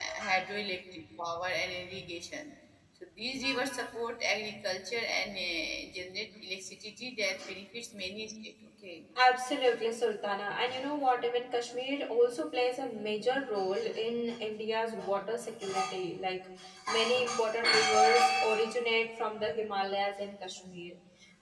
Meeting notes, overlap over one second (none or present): none